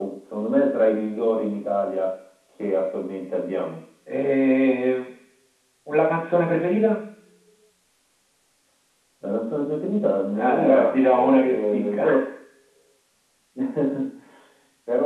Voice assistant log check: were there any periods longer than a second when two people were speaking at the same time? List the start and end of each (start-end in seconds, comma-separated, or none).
10.3-12.0